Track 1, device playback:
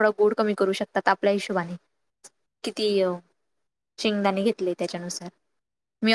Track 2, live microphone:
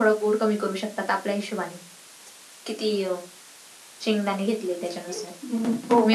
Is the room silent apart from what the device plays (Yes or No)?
No